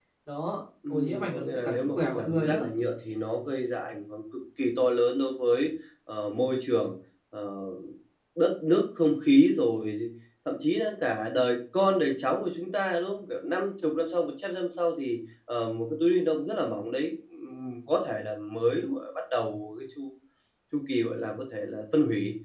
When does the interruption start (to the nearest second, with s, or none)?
1 s